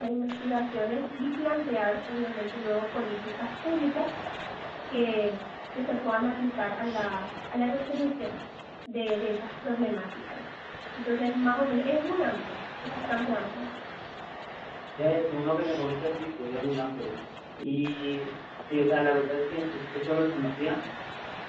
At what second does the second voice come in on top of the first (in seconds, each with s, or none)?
none